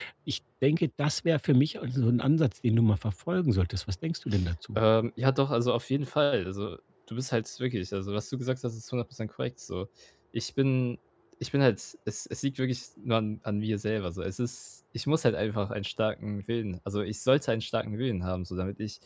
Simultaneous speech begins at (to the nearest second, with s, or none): none